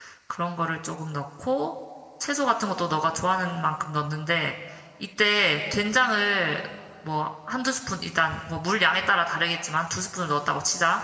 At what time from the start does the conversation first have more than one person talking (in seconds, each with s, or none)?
none